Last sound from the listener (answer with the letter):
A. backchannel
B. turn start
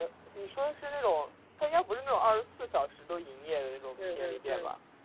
B